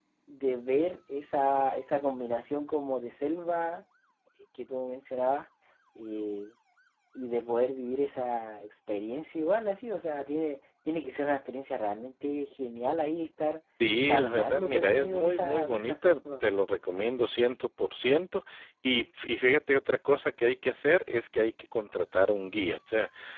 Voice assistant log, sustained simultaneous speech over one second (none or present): present